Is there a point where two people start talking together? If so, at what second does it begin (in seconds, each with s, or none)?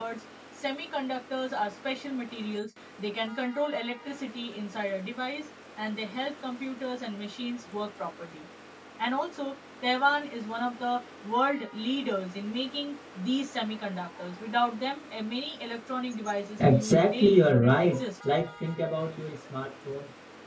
16.6 s